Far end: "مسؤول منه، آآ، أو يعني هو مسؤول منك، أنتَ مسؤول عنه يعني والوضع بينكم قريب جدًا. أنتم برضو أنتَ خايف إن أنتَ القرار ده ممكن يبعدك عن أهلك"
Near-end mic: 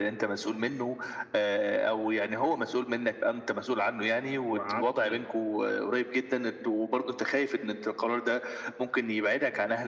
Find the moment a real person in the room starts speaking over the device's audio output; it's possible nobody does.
4.5 s

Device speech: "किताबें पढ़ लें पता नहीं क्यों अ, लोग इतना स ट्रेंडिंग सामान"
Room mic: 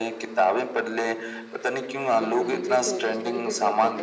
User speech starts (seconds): 2.2 s

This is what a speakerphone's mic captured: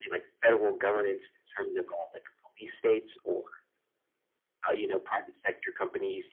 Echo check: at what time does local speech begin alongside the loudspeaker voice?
none

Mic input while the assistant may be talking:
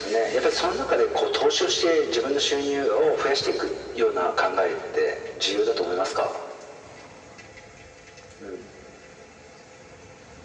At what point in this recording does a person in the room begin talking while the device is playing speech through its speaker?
none

